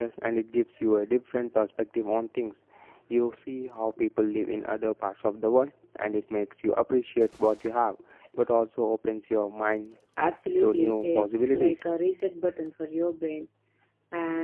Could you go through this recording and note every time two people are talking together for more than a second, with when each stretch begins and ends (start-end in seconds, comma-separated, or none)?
10.6-11.8